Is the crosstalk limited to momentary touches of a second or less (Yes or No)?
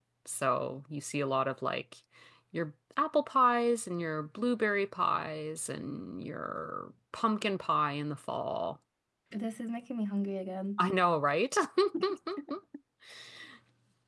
Yes